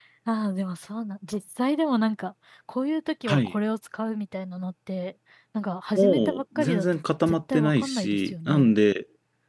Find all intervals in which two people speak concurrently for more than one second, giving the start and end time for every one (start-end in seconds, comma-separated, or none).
6.0-8.8